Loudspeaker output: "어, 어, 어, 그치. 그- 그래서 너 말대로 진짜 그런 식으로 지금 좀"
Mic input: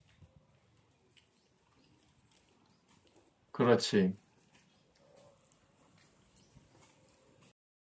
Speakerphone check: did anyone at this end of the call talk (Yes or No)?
Yes